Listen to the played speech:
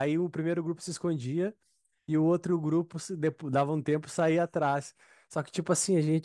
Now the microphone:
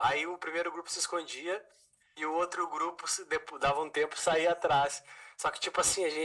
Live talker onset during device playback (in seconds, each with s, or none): none